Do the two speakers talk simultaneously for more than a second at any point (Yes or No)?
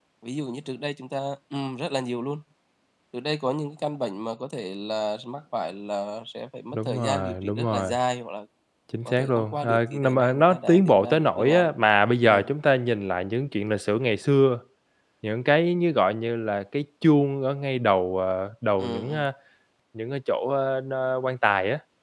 Yes